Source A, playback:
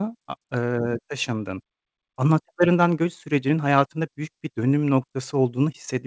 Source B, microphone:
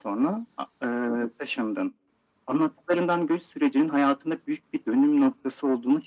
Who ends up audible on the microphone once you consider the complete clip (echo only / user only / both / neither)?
echo only